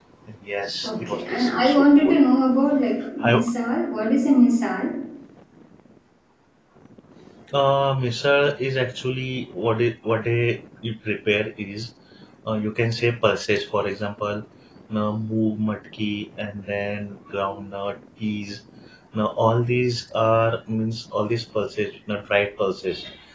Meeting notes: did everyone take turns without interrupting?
No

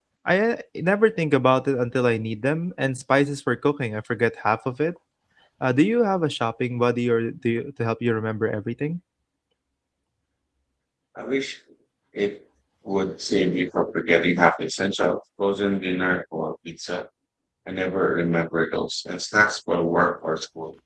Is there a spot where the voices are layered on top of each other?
No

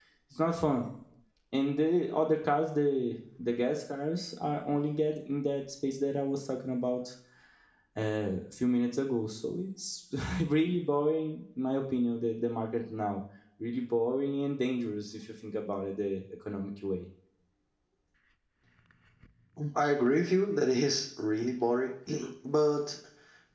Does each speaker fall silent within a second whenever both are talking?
Yes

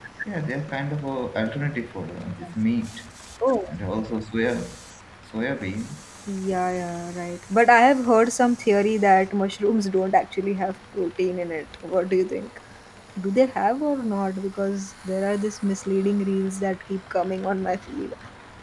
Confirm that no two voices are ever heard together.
Yes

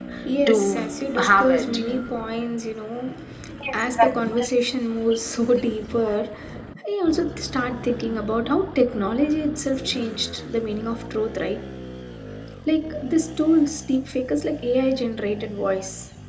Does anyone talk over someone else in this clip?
Yes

